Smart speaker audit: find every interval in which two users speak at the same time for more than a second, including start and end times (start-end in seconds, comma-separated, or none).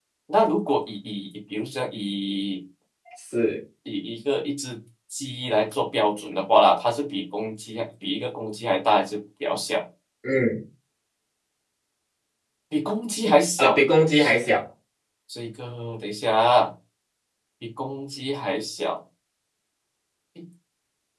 none